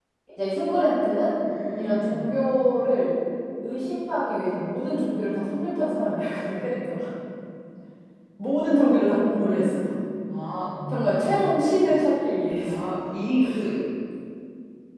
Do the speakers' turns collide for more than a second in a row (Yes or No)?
No